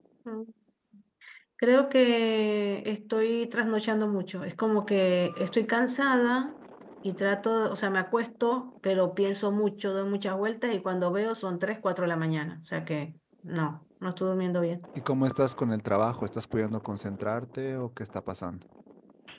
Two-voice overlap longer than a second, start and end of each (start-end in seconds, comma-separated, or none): none